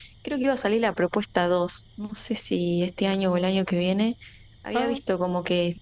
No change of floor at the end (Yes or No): Yes